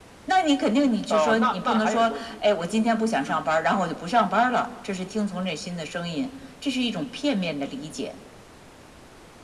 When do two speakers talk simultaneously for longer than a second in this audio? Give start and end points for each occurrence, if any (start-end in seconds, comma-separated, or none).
1.1-2.3